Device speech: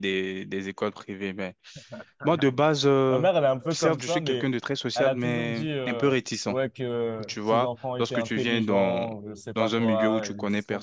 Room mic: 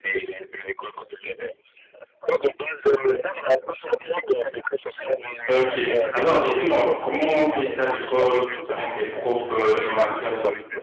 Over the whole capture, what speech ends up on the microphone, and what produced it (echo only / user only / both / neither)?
both